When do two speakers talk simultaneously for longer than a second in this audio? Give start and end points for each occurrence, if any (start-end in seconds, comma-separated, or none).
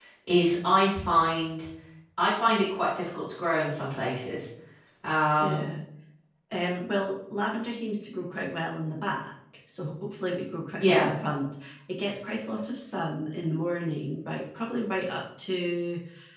none